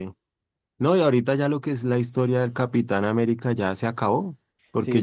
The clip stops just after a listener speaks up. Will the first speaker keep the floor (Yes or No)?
Yes